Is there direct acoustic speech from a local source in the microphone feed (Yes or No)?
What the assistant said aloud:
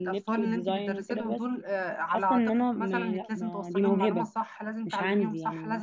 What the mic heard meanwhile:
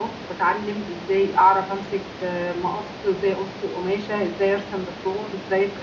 Yes